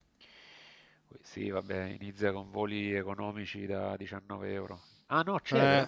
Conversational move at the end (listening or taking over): listening